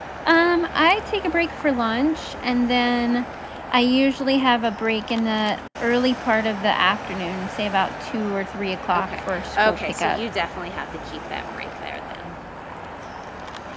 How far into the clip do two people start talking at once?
9 s

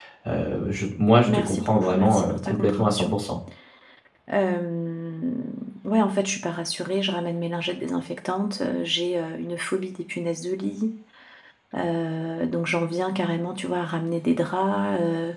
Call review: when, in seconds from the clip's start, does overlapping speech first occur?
1 s

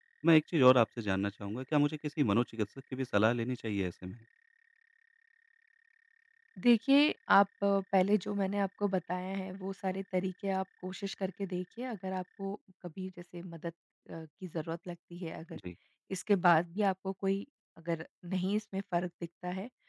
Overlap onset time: none

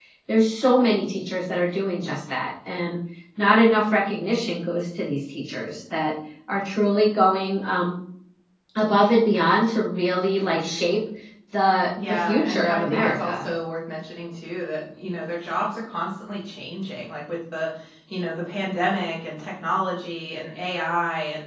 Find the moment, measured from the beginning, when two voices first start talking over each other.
12 s

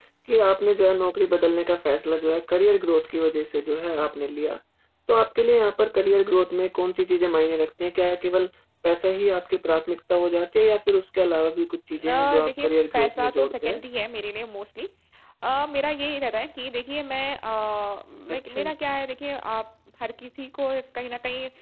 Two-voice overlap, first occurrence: 12 s

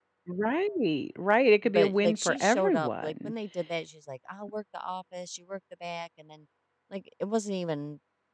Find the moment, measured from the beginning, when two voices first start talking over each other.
2 s

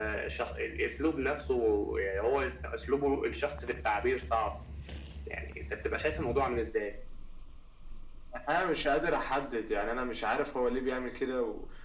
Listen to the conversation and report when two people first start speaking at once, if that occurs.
none

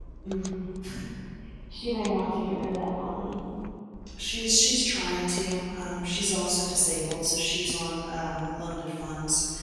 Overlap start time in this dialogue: none

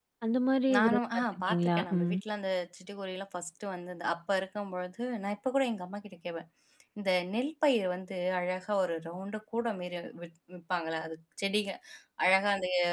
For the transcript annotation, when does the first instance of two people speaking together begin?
1 s

